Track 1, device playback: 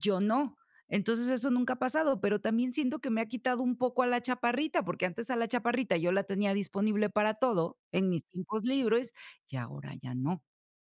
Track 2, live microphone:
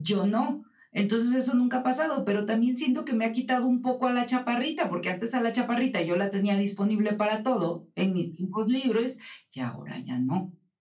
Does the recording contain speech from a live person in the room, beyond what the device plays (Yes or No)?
No